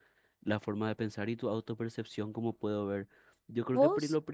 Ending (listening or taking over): listening